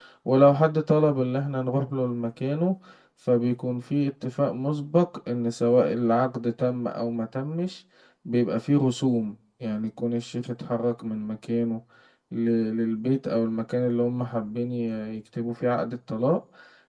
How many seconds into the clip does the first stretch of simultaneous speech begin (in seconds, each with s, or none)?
none